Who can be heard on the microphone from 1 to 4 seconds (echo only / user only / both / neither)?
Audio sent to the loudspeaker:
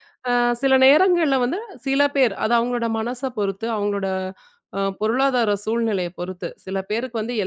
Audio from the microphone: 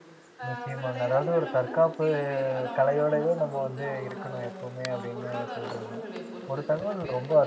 both